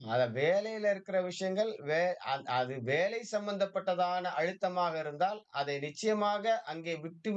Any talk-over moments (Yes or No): No